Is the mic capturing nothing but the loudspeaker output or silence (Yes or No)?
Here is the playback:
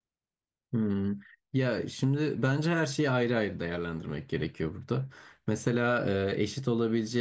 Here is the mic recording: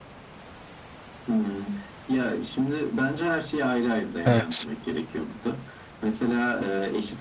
No